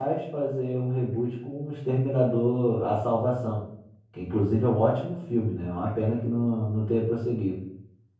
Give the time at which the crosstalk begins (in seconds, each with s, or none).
none